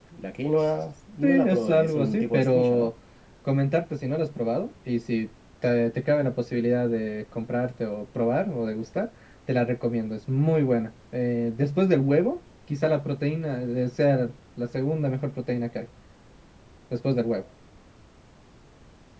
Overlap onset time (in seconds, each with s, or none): 1.3 s